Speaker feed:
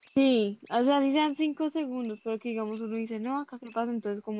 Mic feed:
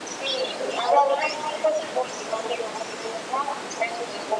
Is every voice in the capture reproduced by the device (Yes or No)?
Yes